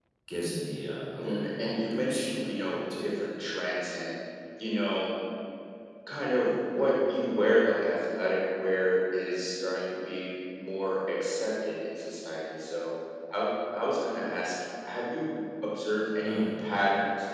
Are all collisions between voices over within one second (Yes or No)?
No